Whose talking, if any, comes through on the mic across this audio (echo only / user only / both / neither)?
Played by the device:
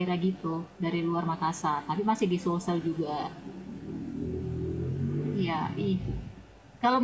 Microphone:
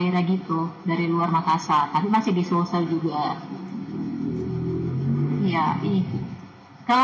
echo only